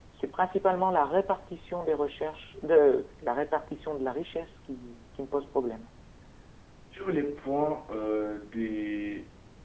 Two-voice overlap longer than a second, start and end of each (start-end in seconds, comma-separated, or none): none